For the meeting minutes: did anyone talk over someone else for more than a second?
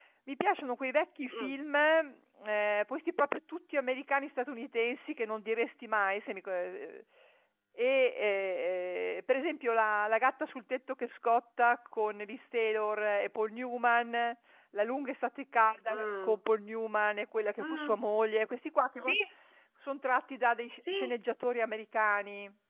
No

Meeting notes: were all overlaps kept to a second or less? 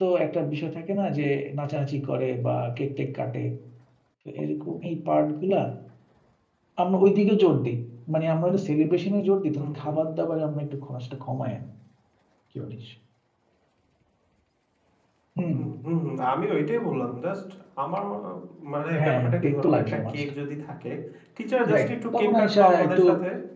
No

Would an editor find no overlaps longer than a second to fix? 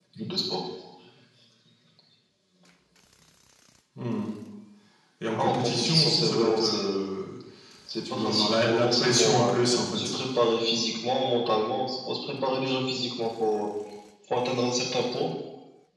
No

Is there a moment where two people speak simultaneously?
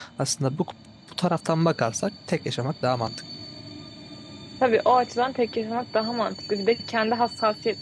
No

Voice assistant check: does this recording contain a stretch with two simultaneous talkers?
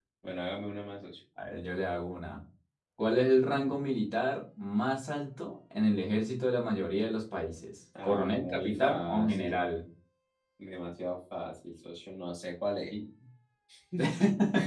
Yes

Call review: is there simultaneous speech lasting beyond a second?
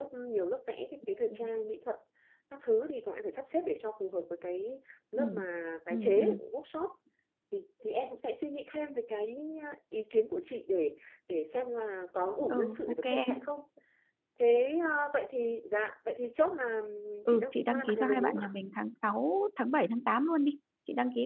Yes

